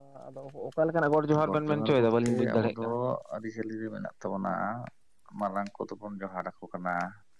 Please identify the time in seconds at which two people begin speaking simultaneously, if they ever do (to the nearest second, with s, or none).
1 s